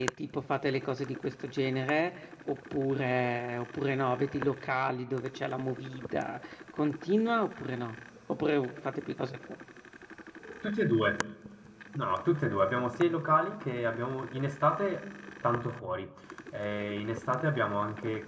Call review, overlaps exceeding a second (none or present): none